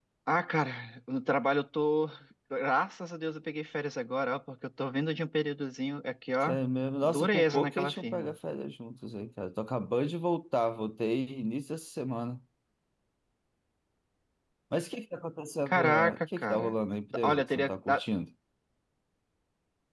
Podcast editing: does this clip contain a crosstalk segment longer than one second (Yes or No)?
Yes